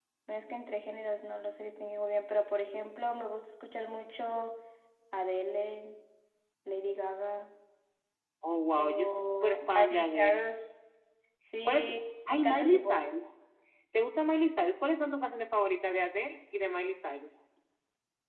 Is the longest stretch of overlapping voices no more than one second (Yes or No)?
No